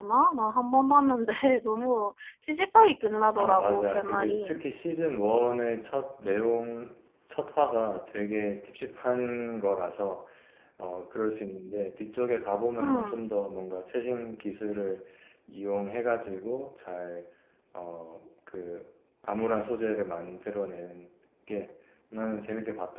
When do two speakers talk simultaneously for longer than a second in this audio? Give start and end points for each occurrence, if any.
3.4-4.6

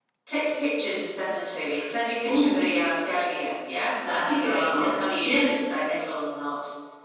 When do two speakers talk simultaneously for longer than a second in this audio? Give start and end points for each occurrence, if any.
4.1-5.5

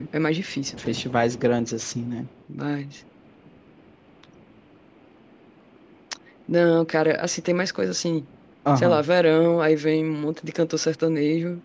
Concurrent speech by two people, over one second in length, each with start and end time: none

